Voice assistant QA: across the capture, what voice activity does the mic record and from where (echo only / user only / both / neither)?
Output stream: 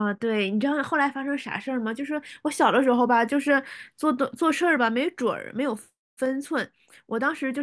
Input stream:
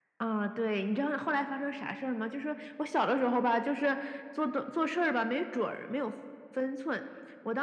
echo only